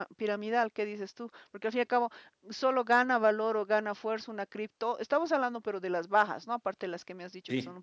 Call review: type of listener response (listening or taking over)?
listening